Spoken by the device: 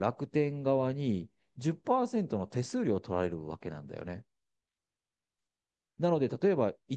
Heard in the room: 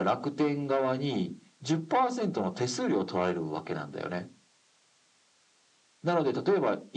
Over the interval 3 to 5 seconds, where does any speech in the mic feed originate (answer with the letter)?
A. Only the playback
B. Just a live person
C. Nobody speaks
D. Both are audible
A